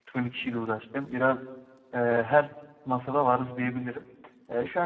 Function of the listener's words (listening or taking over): listening